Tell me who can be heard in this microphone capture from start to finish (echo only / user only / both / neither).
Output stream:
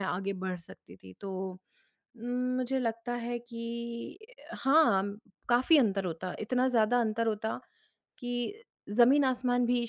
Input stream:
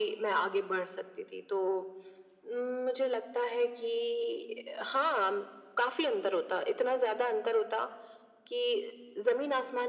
echo only